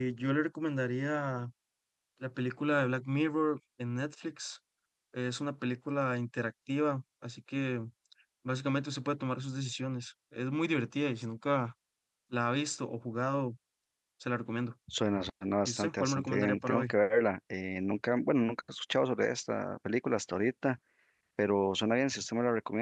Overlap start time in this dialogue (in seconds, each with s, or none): 15.6 s